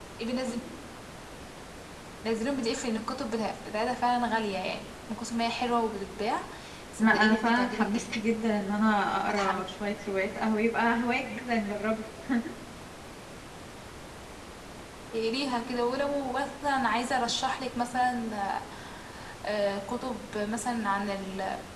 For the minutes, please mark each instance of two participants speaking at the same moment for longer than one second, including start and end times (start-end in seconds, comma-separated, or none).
7.0-8.2